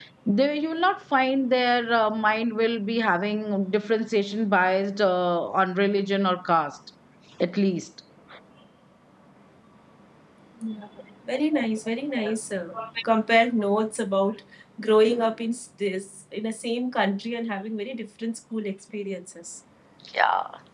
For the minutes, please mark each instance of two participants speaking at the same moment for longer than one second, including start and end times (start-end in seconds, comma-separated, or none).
none